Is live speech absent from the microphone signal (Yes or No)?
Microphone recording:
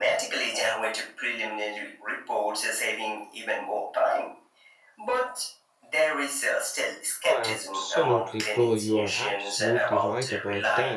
No